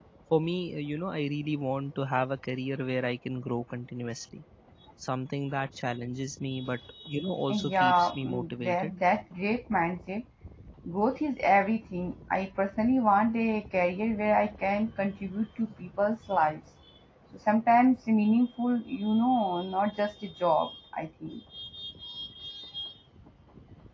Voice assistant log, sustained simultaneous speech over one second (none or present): present